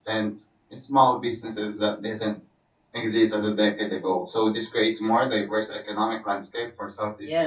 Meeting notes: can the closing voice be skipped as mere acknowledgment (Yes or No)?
No